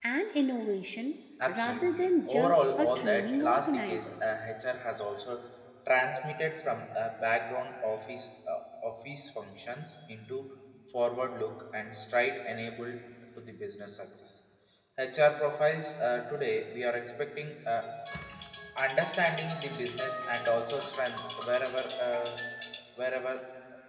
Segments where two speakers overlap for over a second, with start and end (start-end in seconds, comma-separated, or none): 1.5-4.1